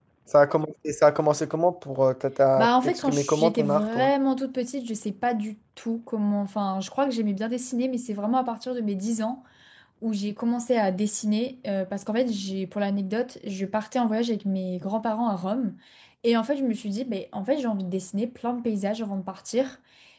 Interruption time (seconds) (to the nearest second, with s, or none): 3 s